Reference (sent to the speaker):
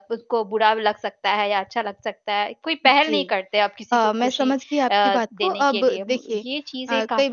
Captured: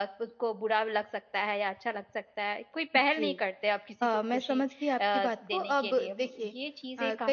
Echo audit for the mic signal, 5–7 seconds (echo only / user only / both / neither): echo only